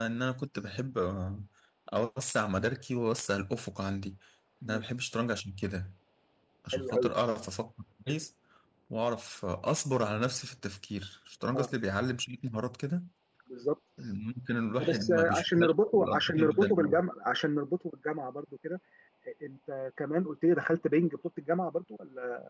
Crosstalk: present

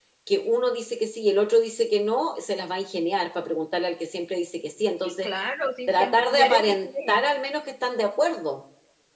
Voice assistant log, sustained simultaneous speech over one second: present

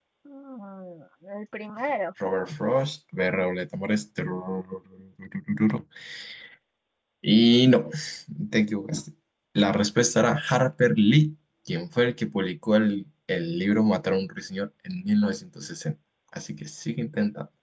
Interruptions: none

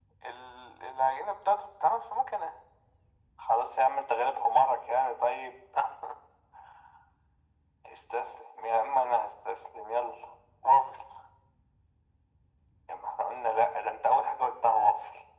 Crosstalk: none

